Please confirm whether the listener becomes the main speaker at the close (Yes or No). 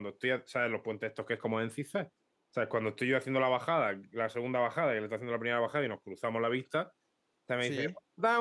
No